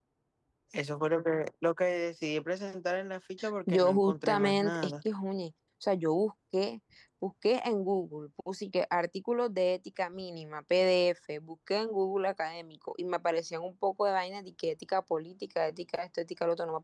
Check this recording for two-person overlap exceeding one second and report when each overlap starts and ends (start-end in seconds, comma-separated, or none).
3.7-4.9